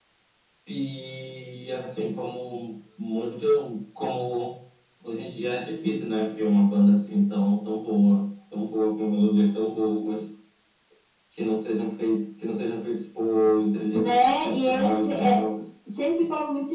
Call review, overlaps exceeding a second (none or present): present